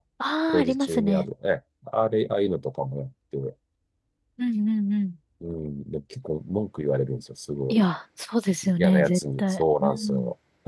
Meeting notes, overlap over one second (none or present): present